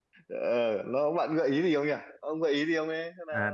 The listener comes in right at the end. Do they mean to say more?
Yes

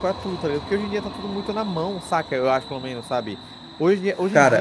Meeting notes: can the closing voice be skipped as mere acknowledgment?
Yes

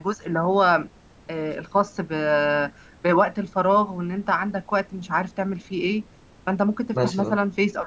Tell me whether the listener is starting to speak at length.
No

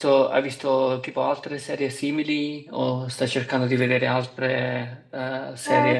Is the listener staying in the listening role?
No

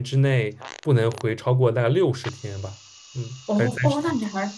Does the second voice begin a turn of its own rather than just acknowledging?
Yes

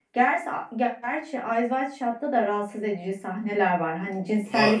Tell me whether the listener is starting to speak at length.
No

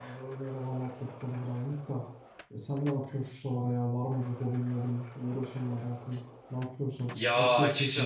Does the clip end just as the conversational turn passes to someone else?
Yes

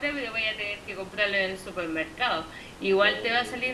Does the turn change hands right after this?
No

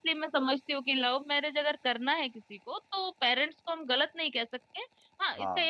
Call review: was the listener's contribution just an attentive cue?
Yes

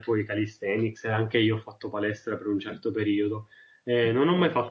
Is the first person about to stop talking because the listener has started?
No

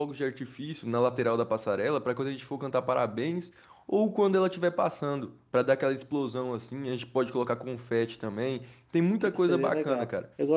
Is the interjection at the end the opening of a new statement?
Yes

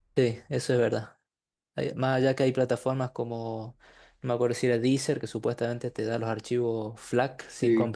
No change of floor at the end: No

